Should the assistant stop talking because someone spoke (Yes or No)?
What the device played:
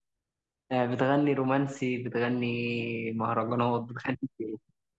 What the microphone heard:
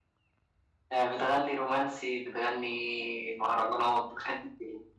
No